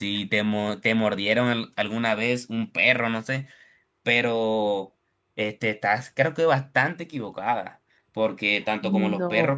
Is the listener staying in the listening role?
Yes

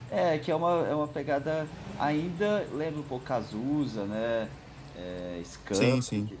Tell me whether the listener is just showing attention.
Yes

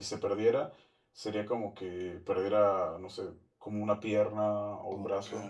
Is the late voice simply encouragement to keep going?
Yes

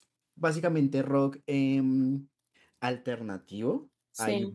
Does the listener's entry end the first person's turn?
No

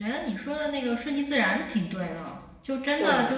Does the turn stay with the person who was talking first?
Yes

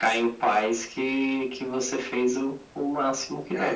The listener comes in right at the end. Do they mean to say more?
Yes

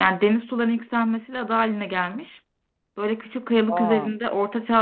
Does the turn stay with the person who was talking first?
Yes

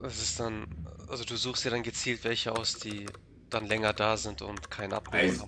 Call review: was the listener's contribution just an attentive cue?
No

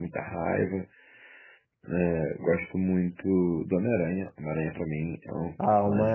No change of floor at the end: No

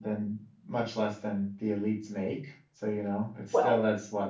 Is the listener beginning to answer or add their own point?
No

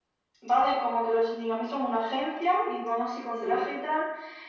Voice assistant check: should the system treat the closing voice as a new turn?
No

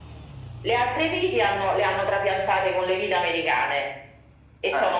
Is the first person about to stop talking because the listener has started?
No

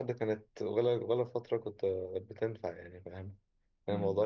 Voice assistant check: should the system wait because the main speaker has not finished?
No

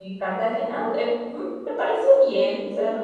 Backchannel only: No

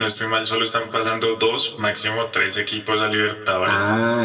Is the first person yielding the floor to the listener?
Yes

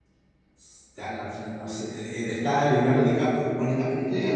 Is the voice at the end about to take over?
Yes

